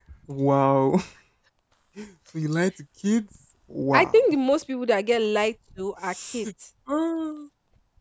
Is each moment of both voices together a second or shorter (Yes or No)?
Yes